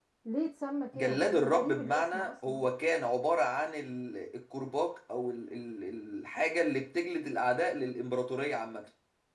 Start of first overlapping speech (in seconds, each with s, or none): 0.9 s